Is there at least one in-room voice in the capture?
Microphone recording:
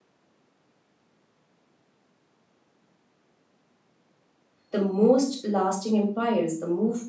Yes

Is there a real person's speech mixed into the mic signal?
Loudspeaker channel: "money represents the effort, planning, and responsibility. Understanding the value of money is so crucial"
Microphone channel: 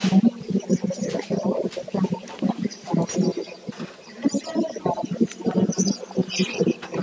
No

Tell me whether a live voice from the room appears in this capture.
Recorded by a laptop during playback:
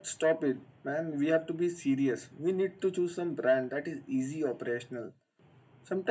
No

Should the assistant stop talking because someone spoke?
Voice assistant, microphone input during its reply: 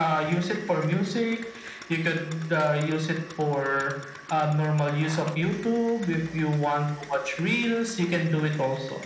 No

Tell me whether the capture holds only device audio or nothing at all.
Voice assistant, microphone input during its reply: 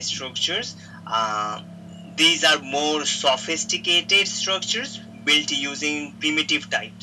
Yes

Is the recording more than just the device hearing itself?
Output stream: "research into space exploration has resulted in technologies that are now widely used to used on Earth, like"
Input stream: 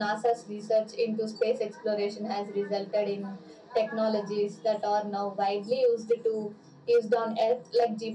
No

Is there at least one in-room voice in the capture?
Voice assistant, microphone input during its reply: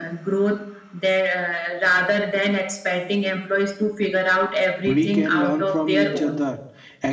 Yes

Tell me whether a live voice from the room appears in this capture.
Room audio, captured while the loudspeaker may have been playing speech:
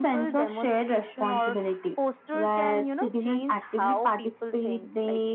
No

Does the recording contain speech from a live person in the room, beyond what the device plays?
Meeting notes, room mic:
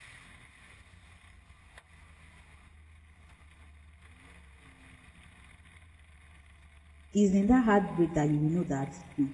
Yes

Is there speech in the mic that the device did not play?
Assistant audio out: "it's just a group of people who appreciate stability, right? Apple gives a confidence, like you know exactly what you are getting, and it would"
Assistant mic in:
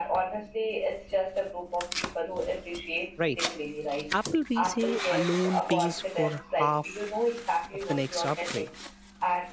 Yes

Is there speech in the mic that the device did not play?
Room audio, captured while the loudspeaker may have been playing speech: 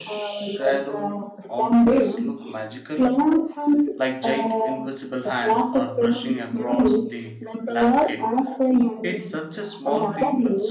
Yes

